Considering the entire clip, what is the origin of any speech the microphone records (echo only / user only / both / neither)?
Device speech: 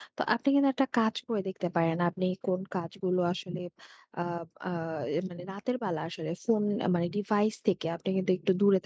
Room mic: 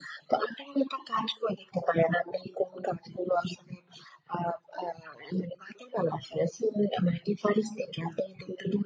echo only